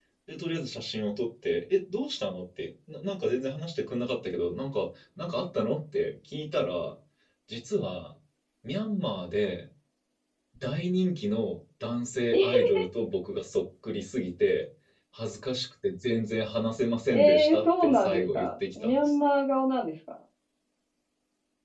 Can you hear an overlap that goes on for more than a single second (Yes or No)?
Yes